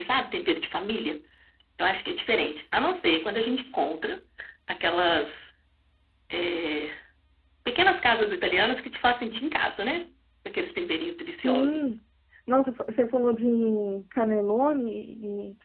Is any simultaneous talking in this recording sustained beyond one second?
No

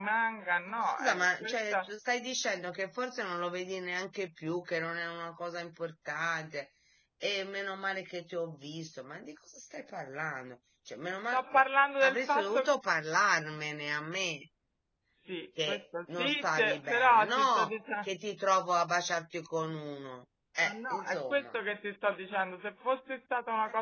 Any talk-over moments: Yes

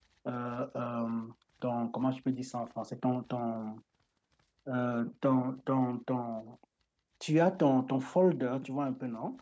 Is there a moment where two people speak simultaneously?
No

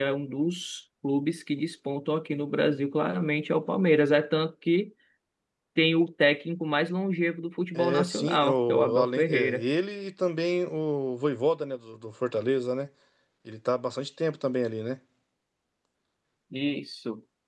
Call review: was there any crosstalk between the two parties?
Yes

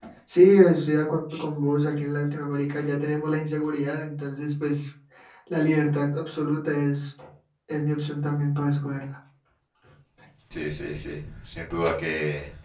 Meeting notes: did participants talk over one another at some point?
No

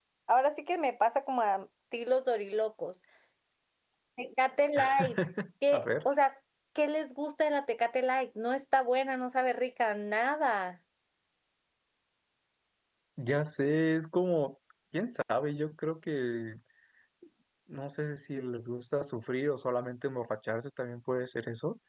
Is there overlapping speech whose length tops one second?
No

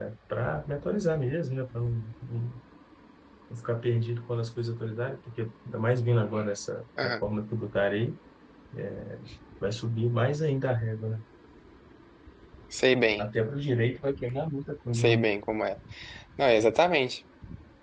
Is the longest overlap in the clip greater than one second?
No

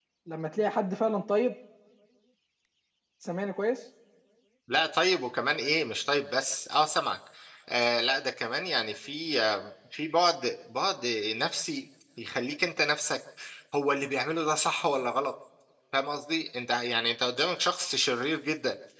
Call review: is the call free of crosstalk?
Yes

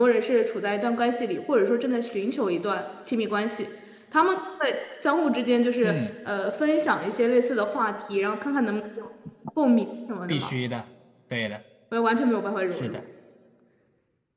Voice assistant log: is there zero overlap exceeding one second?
Yes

